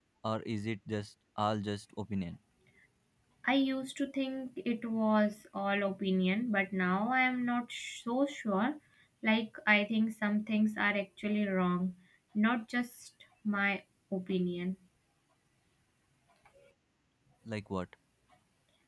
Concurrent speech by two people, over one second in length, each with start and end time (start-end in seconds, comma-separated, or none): none